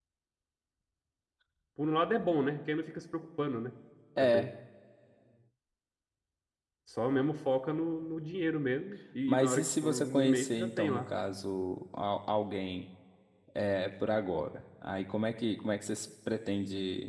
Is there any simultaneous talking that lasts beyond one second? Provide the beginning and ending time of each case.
9.3-11.0

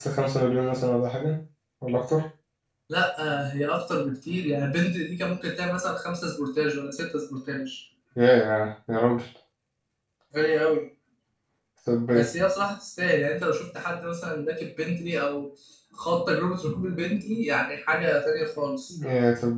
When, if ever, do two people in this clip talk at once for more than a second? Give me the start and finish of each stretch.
none

